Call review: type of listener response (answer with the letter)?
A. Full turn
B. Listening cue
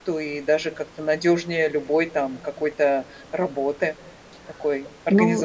A